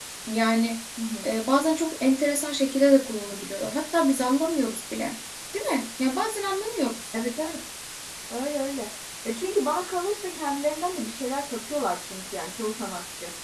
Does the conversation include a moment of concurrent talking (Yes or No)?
No